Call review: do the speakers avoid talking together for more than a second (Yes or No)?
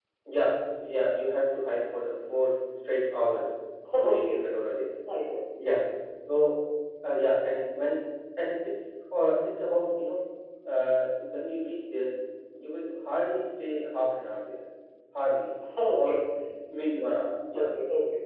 Yes